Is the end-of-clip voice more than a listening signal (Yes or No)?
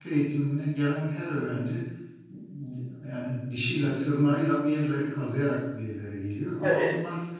No